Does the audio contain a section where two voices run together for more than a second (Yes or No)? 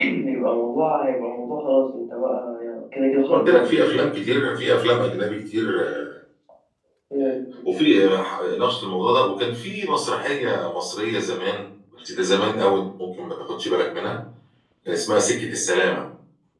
No